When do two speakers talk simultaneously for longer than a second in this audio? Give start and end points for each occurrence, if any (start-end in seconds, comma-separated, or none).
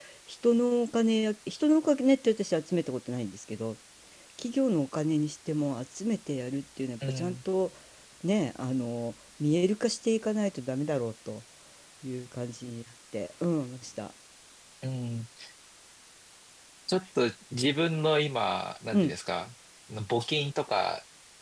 none